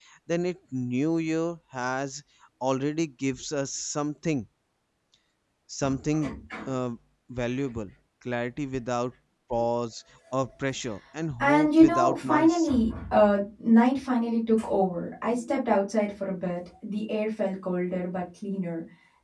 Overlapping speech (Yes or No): Yes